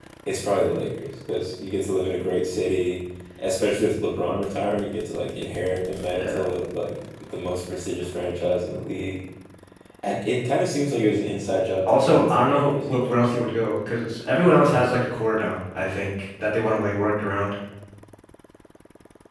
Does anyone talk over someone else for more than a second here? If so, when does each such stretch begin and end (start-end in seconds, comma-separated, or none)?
11.9-13.2